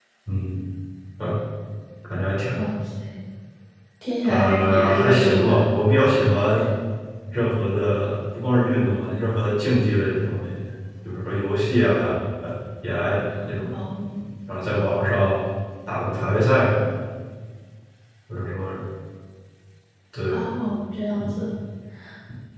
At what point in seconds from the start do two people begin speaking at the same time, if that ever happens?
4.2 s

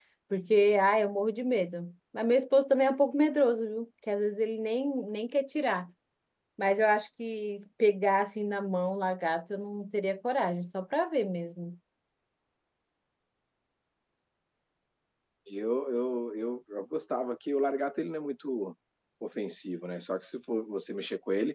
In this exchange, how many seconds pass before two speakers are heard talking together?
none

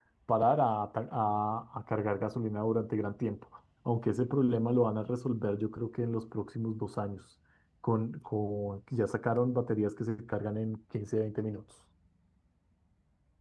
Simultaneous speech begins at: none

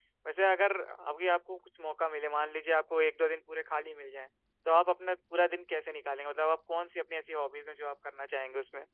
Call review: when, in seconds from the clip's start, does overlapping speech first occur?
none

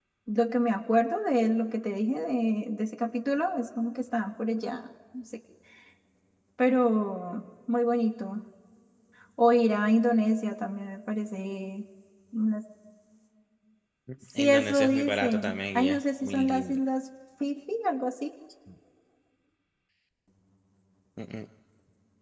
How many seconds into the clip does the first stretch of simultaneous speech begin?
14.4 s

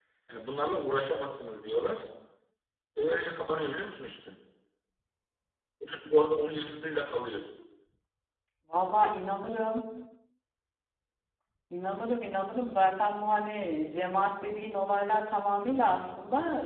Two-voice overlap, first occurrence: none

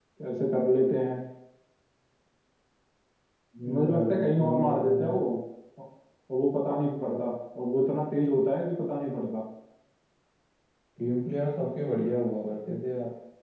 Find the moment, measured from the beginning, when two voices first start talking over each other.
3.7 s

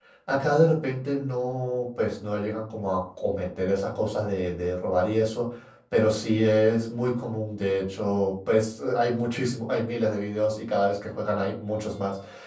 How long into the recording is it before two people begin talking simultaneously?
none

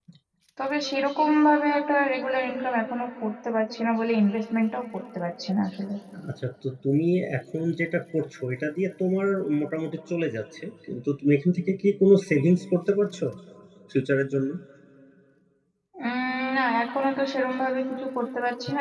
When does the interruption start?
none

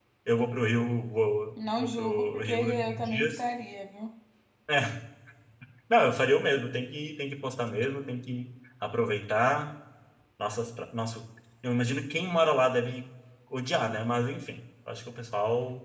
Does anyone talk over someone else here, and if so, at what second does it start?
1.6 s

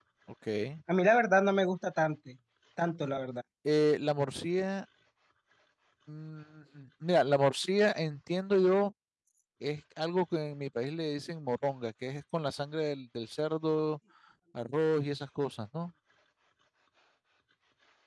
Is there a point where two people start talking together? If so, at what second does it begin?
none

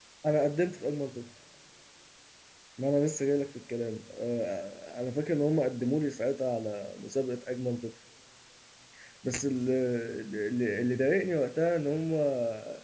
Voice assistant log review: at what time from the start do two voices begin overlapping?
none

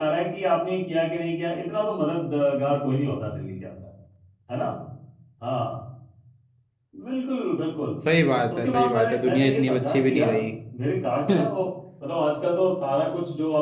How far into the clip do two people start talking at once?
8.5 s

